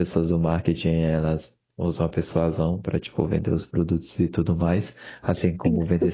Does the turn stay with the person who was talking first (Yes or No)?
Yes